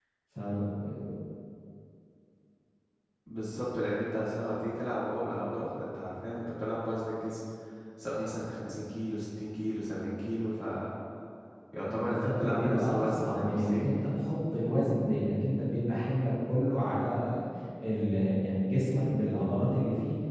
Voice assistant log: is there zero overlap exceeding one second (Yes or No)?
No